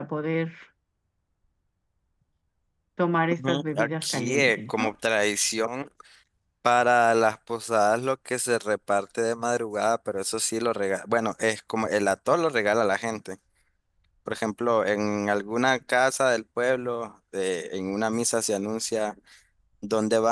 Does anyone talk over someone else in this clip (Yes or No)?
Yes